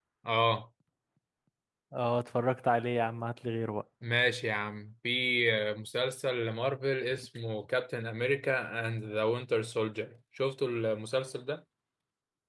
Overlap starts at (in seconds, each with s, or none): none